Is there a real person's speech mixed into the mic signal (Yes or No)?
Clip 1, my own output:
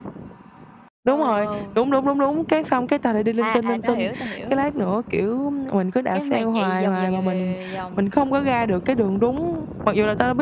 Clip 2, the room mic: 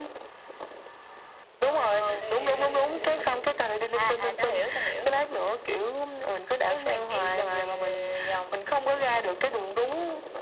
Yes